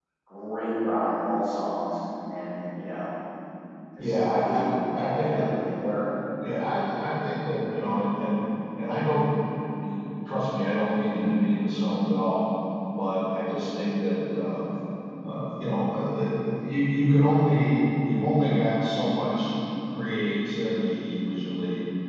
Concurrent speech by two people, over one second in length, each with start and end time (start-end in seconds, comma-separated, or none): 4.0-5.5